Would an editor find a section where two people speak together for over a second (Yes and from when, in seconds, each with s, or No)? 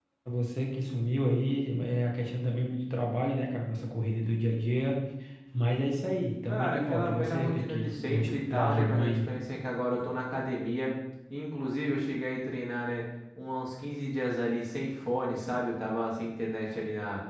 Yes, from 6.5 s